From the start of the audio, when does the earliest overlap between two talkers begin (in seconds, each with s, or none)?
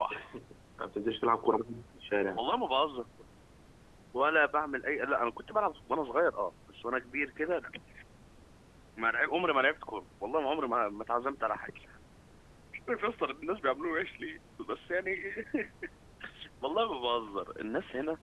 none